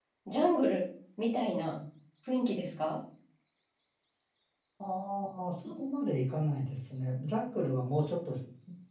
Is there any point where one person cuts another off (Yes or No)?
No